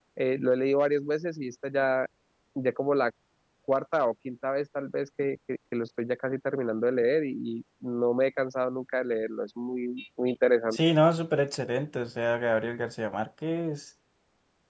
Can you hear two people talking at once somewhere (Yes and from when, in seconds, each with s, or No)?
No